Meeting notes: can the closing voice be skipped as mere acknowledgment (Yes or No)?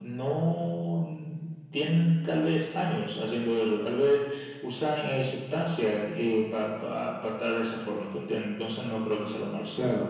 Yes